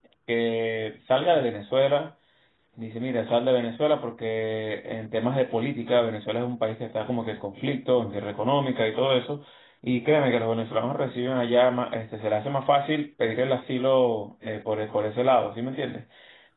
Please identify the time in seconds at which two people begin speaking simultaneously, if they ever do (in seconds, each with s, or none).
none